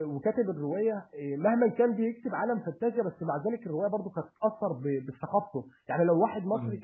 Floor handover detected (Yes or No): No